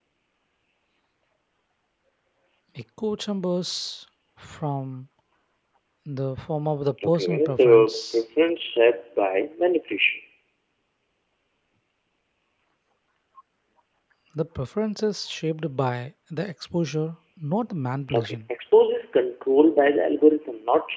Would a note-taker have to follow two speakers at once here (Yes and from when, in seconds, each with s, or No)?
Yes, from 7.0 s